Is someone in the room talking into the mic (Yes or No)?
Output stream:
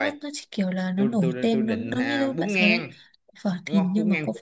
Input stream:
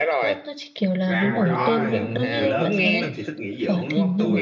Yes